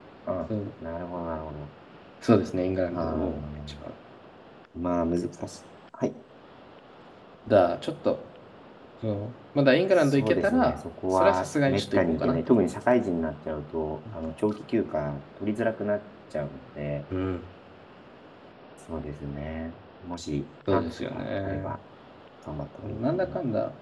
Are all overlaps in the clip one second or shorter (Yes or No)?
No